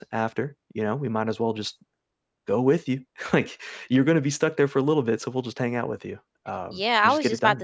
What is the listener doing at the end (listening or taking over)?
taking over